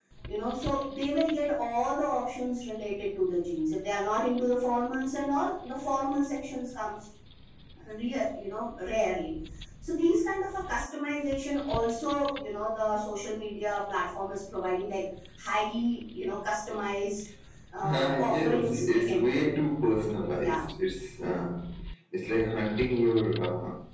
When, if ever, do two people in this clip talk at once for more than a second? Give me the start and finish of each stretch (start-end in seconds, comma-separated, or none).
17.9-19.5